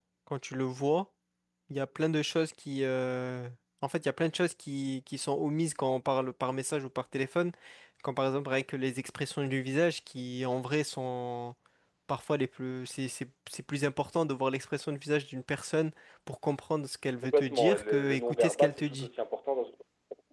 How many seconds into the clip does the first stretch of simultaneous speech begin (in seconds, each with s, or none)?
17.2 s